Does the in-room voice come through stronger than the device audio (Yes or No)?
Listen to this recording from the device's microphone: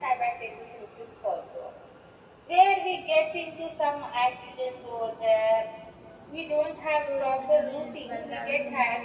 No